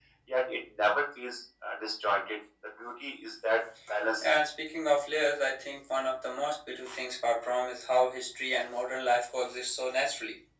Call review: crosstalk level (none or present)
none